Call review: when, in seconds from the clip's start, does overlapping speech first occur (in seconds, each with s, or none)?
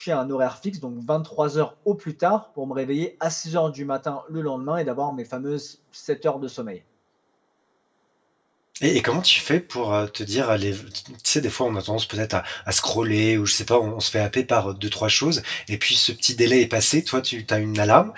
none